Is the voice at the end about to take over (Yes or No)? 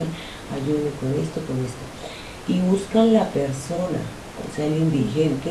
No